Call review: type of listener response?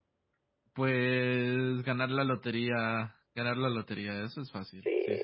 taking over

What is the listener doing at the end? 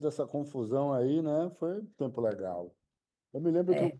listening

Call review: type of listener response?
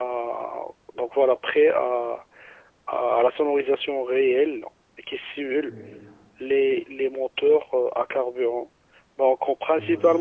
listening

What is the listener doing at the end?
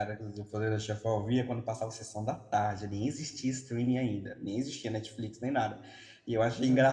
listening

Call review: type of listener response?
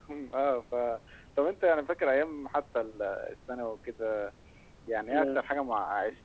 listening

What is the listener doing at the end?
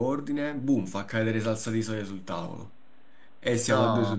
listening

